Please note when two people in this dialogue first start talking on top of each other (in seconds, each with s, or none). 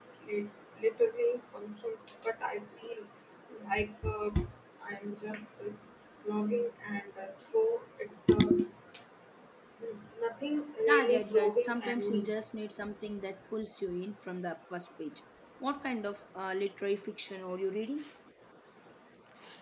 10.9 s